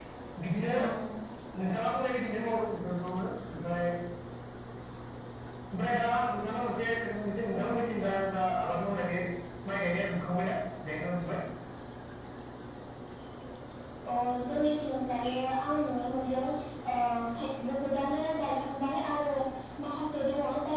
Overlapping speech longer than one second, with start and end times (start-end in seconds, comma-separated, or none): none